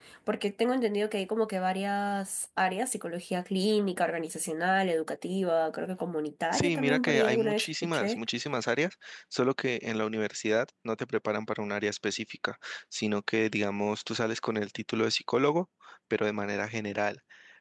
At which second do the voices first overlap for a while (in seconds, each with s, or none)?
6.5 s